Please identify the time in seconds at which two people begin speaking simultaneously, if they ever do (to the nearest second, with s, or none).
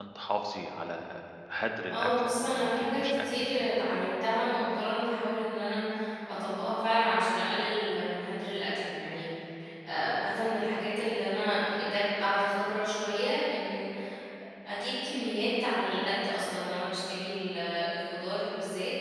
2 s